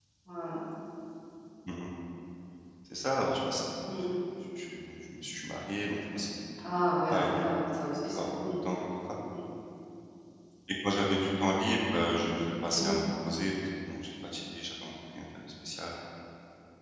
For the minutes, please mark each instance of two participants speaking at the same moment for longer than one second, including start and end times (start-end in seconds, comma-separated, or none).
none